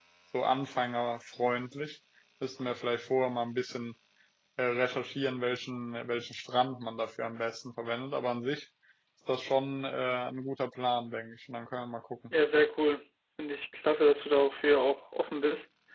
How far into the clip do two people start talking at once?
none

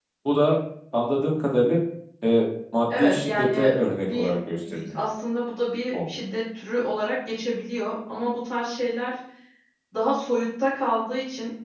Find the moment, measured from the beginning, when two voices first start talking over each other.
3 s

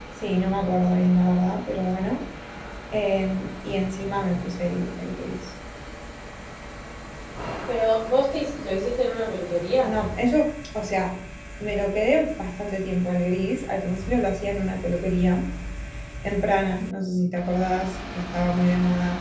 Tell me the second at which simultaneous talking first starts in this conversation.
none

